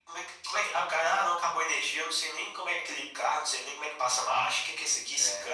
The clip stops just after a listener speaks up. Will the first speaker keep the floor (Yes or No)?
Yes